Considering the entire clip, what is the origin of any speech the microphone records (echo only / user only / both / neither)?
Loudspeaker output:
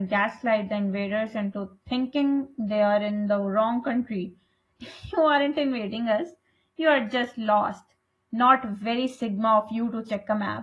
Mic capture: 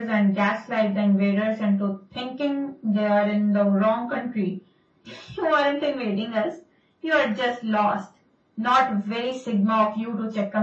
echo only